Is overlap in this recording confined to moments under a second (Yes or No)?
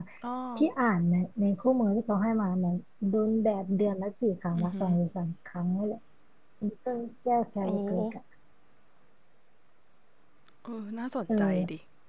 Yes